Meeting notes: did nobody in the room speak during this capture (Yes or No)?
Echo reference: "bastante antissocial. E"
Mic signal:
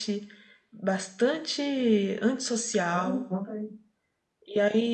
No